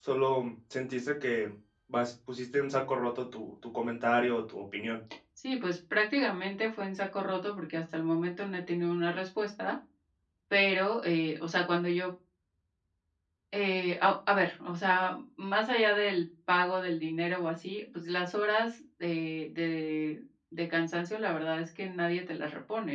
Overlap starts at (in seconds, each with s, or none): none